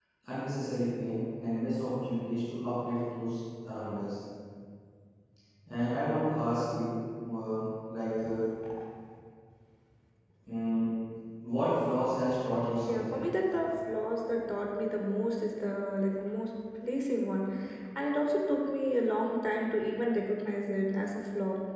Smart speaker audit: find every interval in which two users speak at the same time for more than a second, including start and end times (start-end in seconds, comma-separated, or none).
none